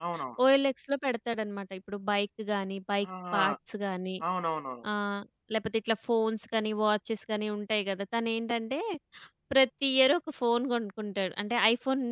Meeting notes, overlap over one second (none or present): none